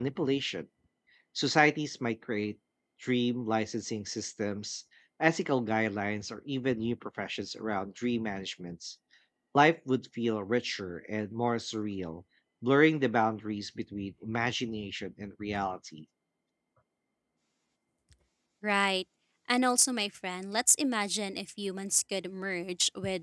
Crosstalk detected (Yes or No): No